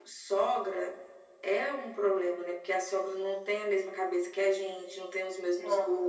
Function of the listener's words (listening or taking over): listening